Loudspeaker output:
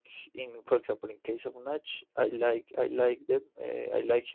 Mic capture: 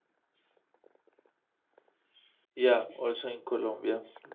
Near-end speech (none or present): present